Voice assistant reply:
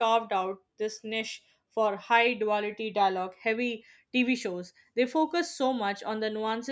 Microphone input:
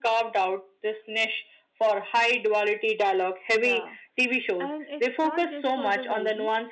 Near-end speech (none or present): present